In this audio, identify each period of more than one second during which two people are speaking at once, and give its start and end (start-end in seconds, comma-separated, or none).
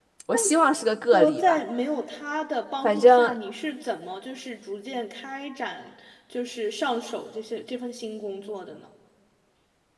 none